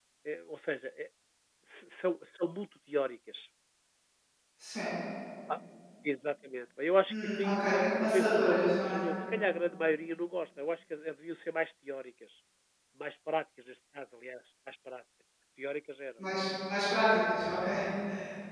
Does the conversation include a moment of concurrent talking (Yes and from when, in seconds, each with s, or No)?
Yes, from 7.1 s